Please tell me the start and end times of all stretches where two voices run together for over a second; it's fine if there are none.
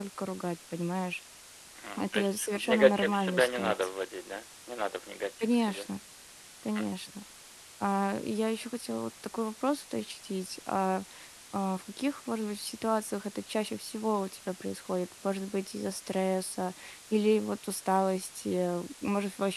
2.0-3.7

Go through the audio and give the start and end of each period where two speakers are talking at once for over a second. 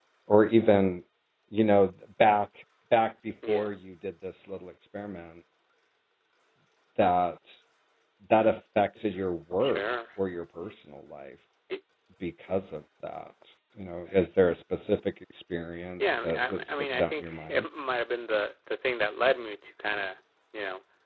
16.0-17.6

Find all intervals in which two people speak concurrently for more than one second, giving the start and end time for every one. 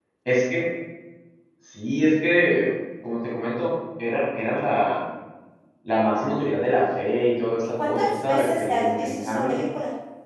7.8-9.6

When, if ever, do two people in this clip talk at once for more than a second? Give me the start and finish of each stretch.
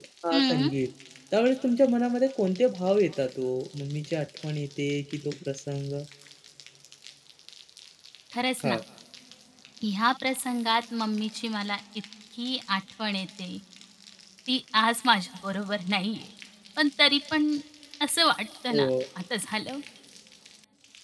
none

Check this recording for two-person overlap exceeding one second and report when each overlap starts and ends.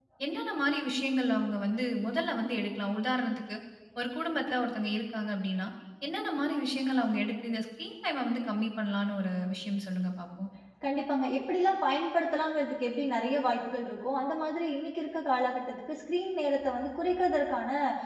none

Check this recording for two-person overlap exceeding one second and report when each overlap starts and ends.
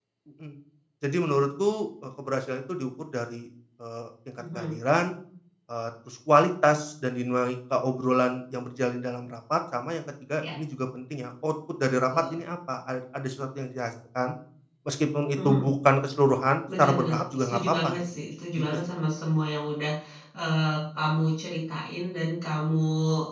16.8-18.0

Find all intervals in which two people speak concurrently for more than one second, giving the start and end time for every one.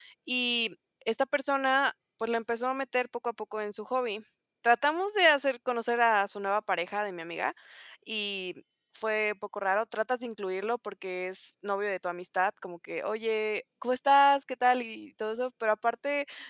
none

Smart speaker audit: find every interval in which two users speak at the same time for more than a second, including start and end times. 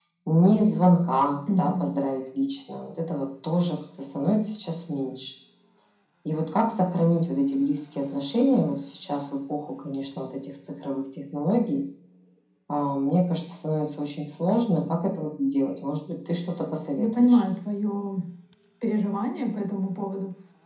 none

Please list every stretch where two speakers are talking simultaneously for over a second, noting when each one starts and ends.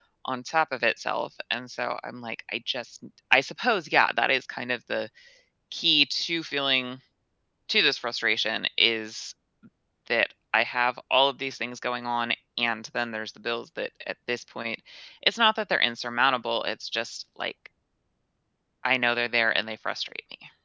none

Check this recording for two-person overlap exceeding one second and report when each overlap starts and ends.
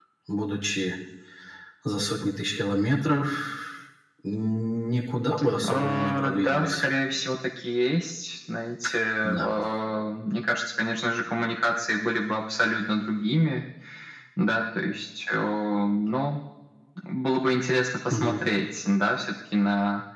5.7-6.8

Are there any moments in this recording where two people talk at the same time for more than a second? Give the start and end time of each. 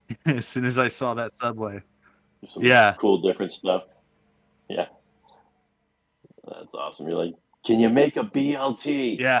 none

